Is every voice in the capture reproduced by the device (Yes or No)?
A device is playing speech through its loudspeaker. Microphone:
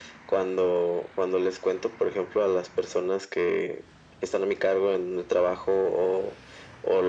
Yes